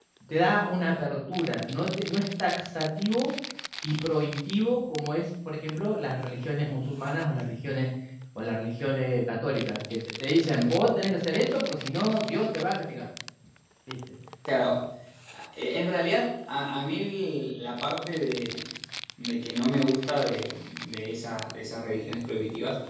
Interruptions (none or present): none